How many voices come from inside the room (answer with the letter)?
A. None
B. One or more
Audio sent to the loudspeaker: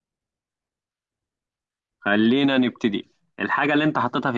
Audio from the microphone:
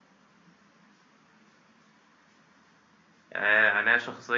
B